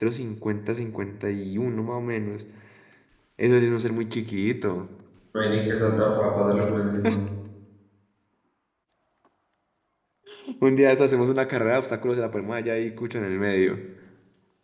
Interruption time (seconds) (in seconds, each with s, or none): none